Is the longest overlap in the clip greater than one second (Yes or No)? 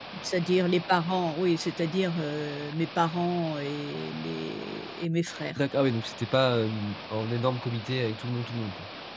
No